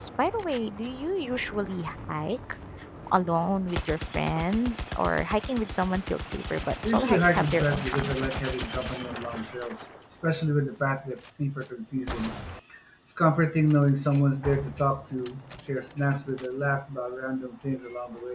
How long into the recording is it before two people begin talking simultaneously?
7 s

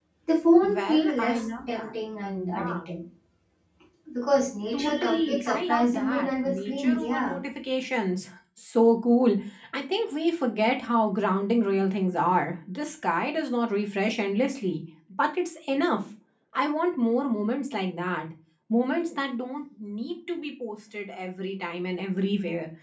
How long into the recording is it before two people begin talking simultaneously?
1 s

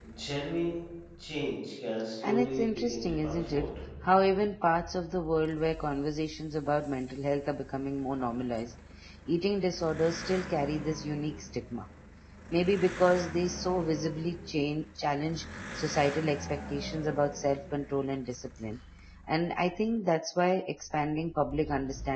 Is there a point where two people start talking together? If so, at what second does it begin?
2 s

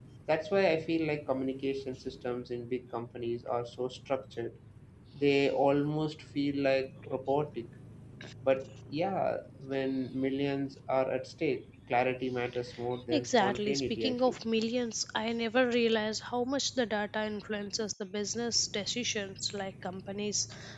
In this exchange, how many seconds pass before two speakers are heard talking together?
13 s

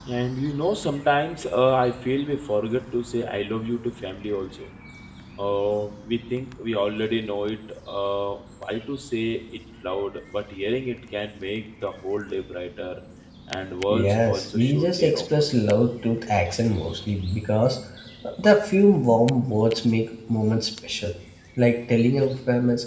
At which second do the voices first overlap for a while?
14 s

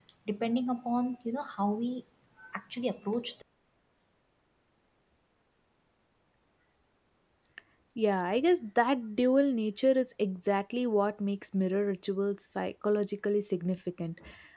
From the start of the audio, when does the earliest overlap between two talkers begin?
none

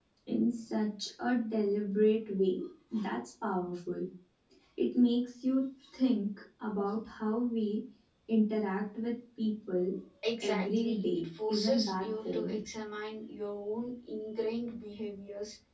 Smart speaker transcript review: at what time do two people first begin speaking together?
10 s

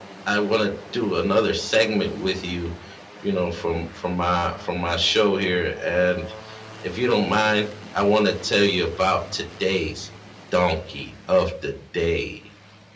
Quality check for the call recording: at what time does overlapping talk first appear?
none

